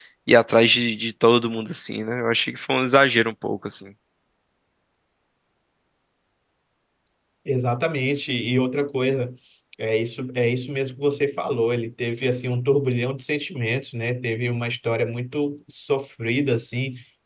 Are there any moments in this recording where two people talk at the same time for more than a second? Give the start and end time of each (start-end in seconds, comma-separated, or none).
none